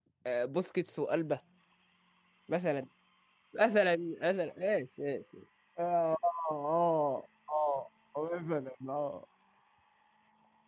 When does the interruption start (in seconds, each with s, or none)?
none